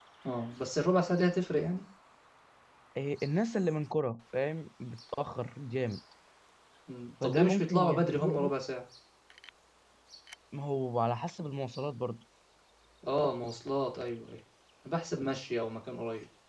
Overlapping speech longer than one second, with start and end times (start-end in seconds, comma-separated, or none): 7.2-8.5